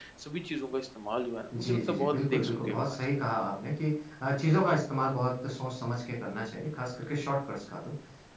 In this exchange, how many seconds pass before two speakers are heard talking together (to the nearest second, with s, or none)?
2 s